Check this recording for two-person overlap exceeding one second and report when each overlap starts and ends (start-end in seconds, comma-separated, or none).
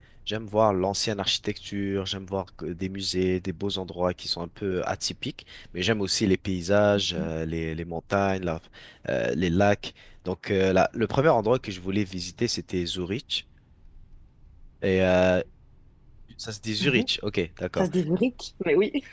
none